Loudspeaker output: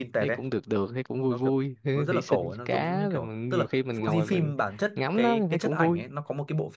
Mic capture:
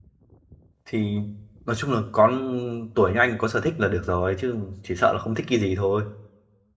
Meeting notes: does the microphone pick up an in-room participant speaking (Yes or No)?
Yes